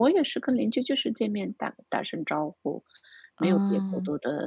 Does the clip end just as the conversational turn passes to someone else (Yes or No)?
No